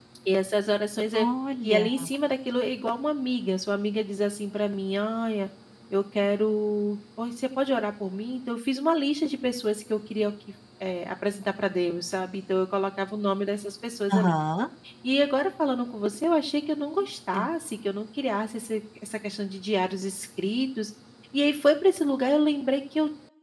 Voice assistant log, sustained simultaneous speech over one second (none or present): none